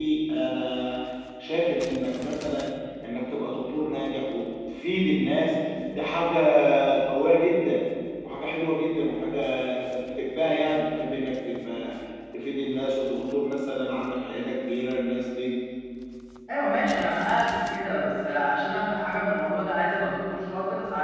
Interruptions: none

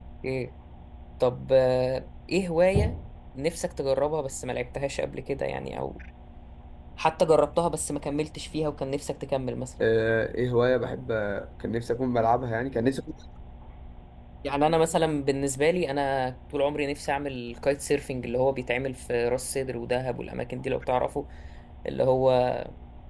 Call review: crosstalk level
none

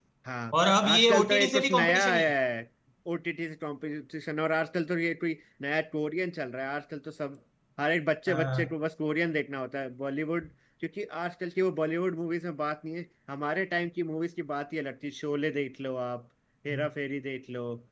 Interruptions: present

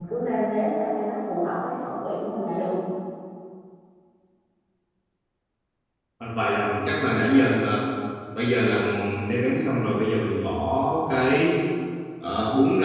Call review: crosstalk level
none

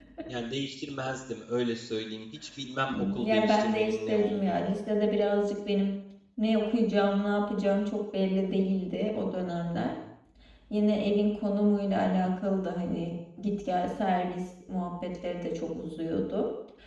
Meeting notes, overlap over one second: present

